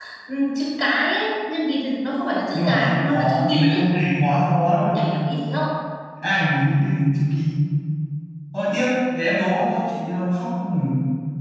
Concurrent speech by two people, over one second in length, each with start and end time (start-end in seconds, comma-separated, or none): 2.5-3.8